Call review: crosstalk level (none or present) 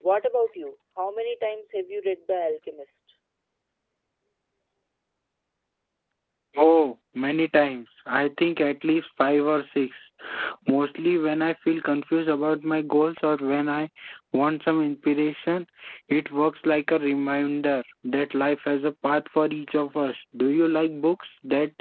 none